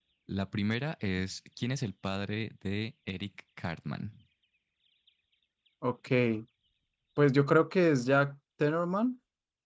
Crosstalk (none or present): none